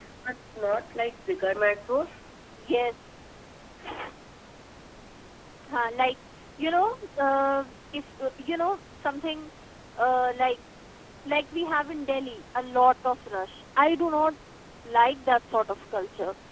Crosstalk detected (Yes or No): No